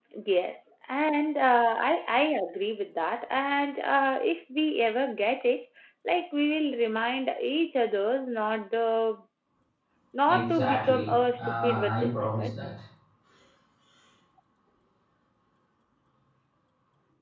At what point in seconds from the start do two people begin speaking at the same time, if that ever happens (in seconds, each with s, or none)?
10.3 s